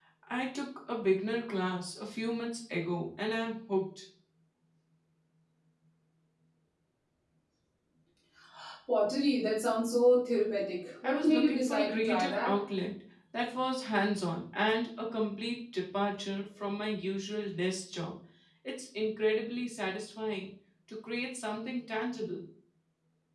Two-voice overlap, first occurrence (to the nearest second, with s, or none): 11 s